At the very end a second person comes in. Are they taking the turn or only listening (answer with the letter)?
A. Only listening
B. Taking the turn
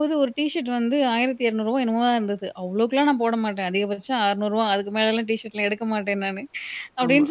A